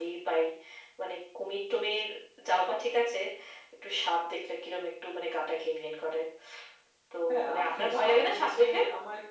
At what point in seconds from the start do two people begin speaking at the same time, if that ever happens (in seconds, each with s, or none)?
7.3 s